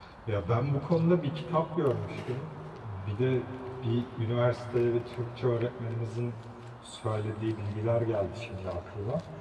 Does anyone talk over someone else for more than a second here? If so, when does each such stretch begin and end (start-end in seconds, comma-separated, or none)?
none